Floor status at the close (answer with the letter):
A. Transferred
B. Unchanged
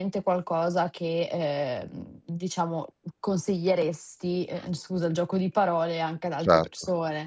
A